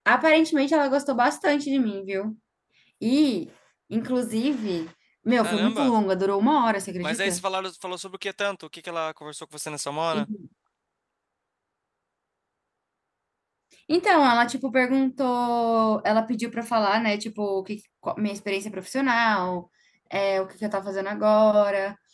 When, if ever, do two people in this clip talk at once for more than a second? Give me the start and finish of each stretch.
none

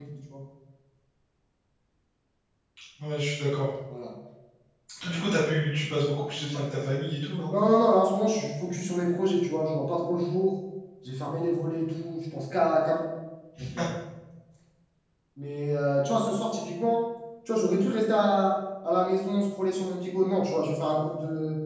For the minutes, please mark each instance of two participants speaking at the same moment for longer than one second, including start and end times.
none

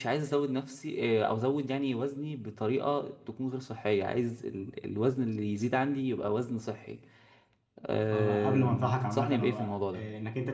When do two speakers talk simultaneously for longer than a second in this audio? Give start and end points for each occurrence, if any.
8.1-10.0

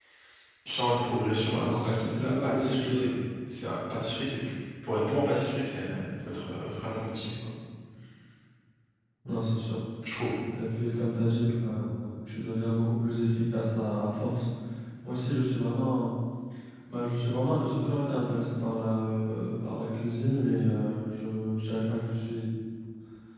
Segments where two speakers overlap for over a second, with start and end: 1.6-3.1

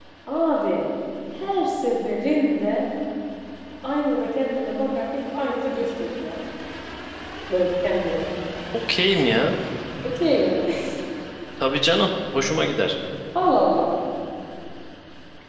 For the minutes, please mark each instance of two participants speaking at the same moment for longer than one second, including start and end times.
none

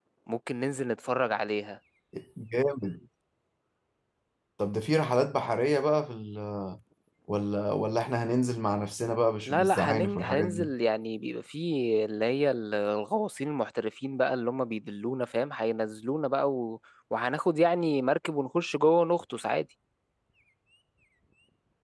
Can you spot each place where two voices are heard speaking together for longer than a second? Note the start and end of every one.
9.5-10.7

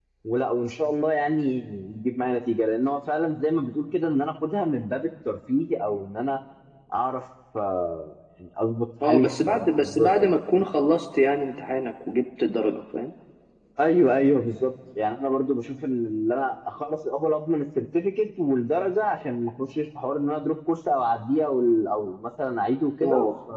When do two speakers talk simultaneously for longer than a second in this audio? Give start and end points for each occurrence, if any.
9.0-10.4

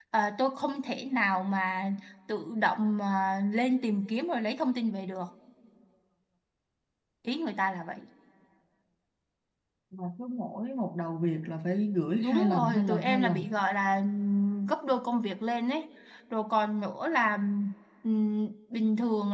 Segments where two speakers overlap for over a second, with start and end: 12.2-13.5

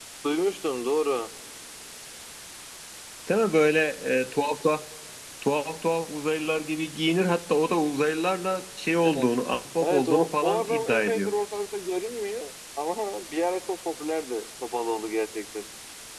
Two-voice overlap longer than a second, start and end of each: 9.8-11.3

